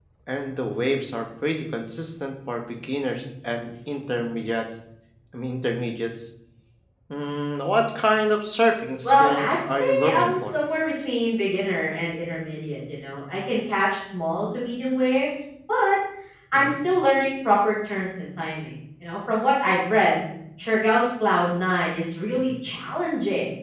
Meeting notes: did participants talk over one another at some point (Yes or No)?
Yes